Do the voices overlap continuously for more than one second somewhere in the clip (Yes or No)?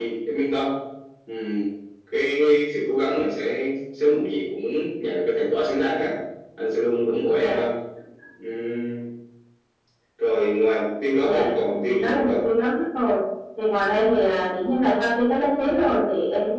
Yes